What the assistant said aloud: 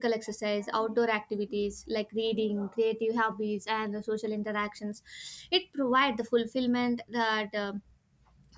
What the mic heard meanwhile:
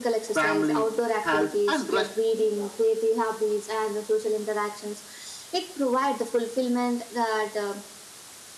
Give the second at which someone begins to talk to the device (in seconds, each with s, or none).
0.3 s